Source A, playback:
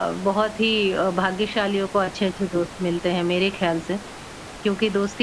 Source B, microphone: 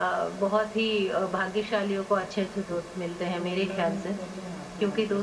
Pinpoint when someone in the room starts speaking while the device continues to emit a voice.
3 s

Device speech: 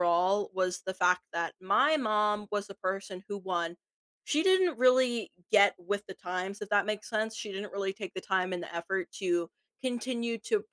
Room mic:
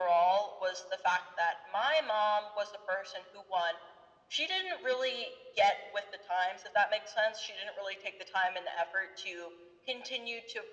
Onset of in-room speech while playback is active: none

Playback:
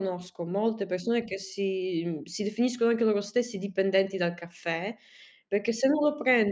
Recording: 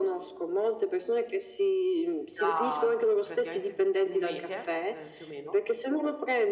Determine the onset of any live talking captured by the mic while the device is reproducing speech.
2 s

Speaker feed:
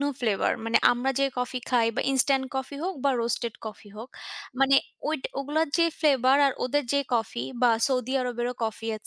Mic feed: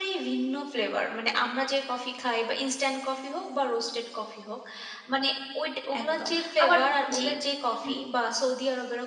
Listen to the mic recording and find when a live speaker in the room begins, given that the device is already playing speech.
6 s

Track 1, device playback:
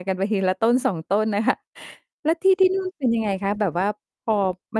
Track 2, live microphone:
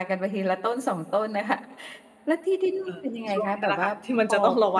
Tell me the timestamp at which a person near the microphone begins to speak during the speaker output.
3 s

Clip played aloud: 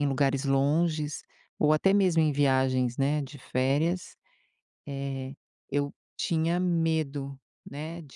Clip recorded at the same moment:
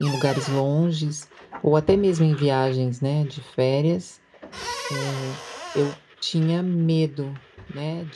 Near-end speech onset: none

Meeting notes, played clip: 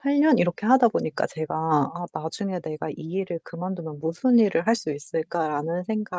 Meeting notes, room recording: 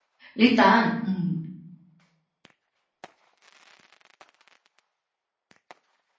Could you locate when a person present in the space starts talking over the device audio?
0 s

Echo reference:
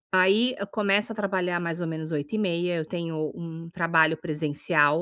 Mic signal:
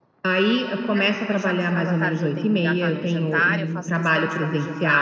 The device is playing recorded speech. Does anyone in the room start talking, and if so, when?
1 s

